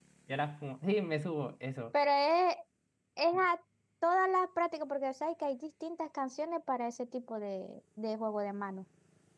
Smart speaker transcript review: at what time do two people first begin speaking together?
none

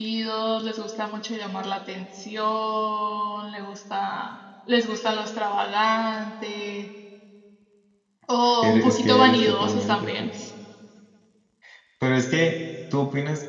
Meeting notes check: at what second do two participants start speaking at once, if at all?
8.6 s

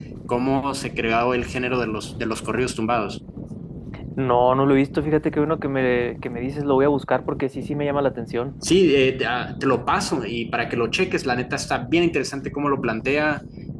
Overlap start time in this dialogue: none

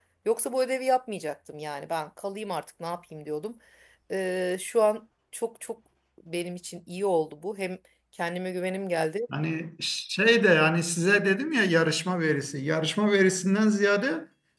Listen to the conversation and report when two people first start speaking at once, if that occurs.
none

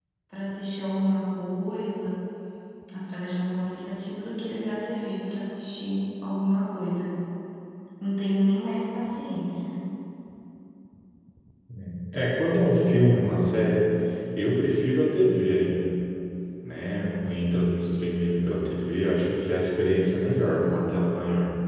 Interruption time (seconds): none

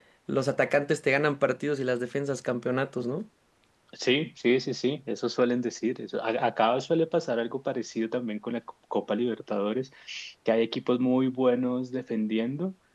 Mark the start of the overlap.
none

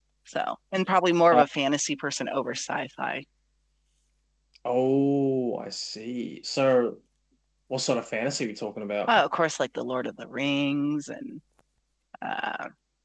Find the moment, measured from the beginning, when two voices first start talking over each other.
none

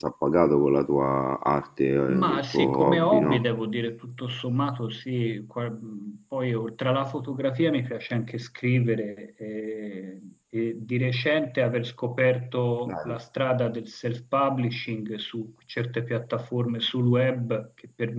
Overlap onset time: 2.1 s

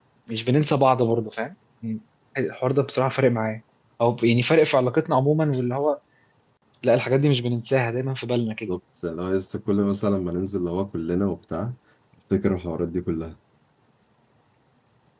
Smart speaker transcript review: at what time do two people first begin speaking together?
none

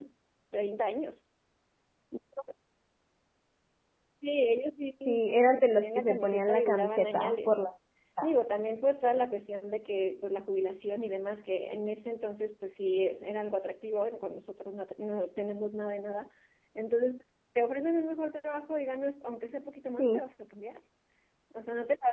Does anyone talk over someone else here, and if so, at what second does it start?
5.1 s

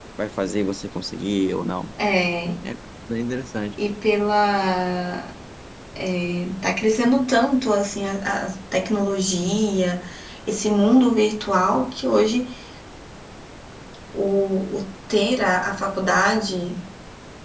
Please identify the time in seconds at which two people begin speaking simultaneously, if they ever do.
none

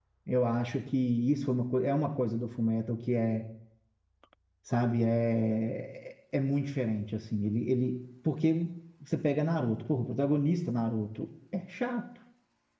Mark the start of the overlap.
none

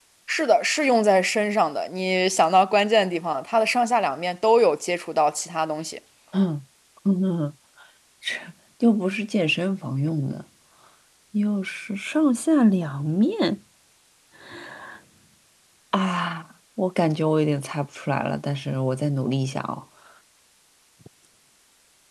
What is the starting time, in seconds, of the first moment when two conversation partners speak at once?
none

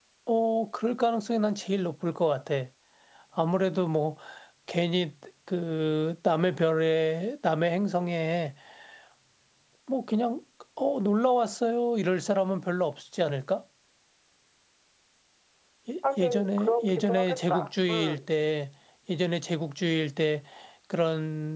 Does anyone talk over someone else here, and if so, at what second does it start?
16.2 s

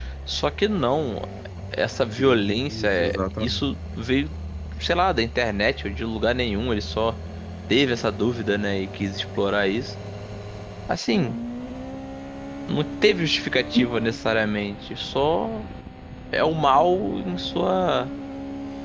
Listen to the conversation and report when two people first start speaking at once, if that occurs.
2.2 s

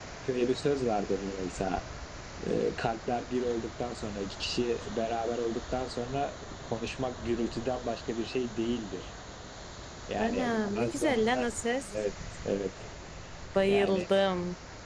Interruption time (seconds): 10.2 s

